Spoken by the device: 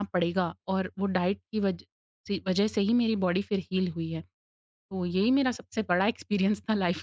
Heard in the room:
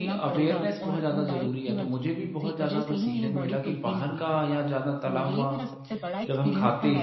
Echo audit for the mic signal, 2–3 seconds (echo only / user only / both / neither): both